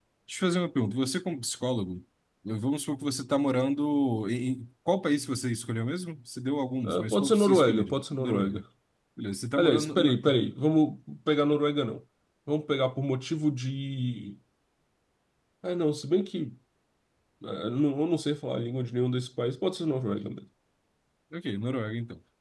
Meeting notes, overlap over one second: present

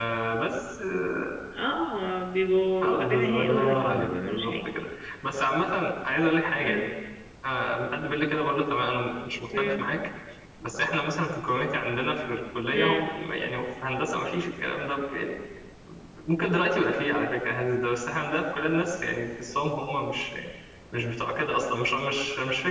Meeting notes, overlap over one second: present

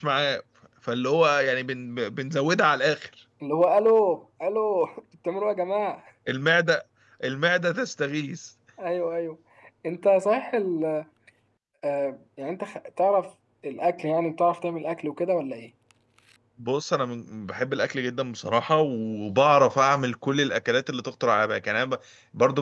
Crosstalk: none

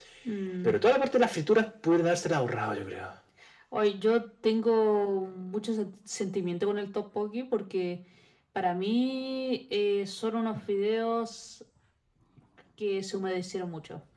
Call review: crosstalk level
none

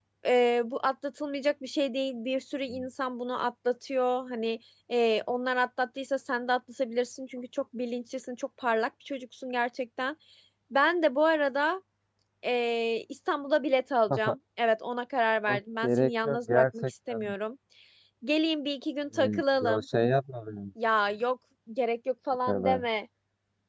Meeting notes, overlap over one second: present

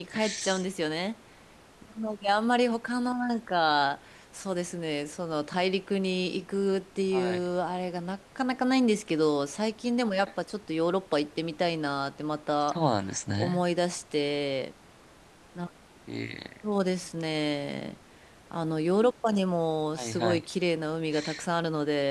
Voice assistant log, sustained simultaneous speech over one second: none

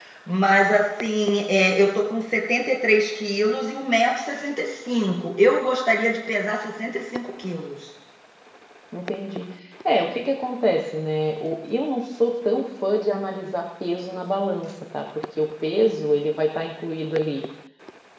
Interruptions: none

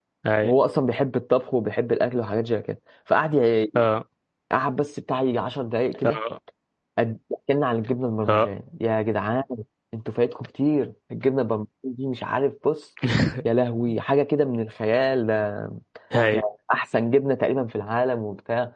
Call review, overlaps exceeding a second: none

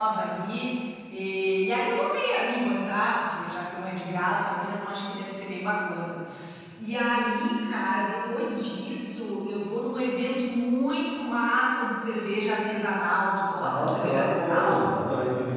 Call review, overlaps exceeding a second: present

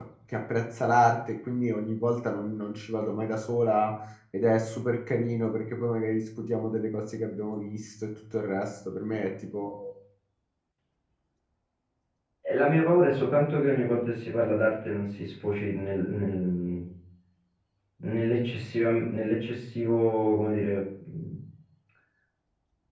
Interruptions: none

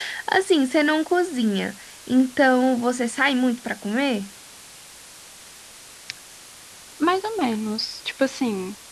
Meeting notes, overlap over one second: none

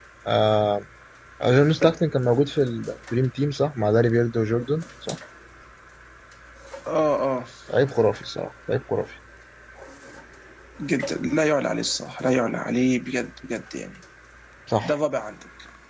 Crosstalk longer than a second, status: none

